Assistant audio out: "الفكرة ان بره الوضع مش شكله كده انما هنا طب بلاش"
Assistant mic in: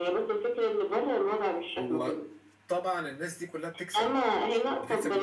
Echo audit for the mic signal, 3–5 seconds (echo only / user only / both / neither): both